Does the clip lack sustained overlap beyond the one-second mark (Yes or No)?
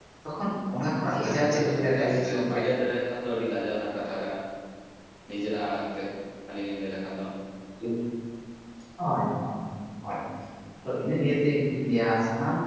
No